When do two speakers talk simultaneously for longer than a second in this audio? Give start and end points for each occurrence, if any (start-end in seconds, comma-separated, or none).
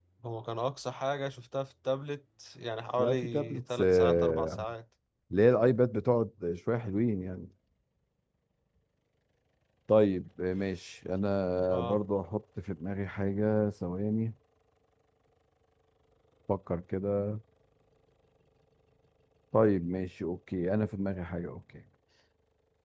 3.0-4.6